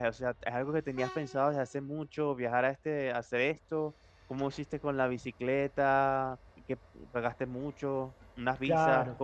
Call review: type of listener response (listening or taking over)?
taking over